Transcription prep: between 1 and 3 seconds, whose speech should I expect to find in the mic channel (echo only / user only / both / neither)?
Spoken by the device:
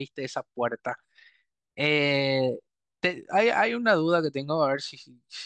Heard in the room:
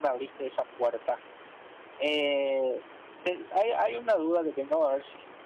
echo only